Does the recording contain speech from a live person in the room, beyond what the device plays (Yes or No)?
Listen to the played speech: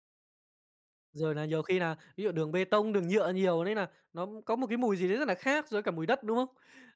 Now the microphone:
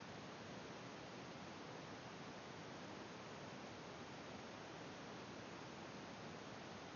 No